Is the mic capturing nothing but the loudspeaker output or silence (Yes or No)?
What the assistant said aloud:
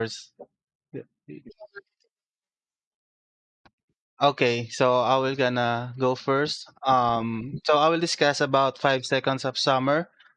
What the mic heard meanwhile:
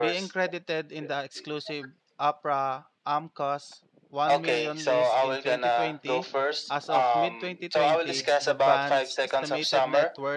No